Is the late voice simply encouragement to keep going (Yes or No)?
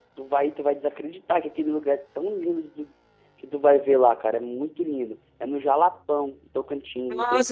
No